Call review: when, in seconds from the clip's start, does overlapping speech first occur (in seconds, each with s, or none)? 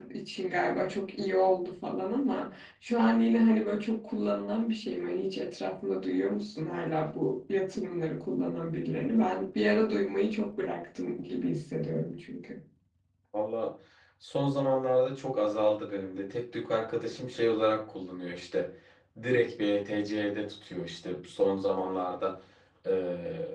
none